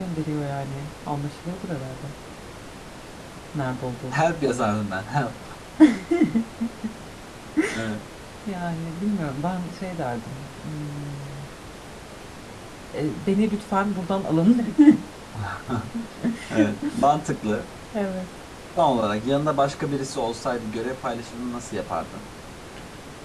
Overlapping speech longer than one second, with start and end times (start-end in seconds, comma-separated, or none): none